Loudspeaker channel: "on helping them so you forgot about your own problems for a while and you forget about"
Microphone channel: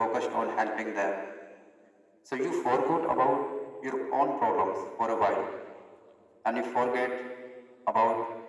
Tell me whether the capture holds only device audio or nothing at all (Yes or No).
Yes